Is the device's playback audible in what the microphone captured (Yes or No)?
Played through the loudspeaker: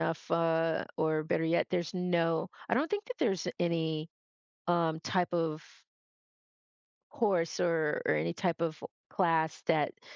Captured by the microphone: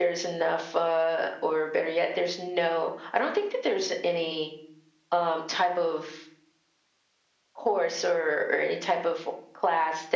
Yes